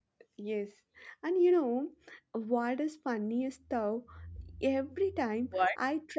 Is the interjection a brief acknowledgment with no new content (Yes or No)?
Yes